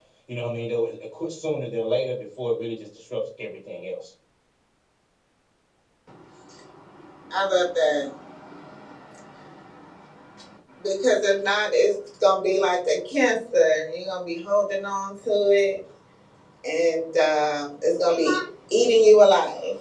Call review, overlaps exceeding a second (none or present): none